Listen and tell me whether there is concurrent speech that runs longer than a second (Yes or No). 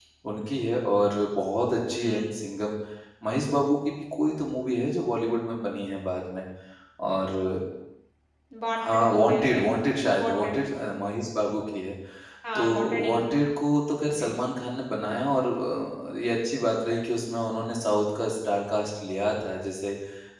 Yes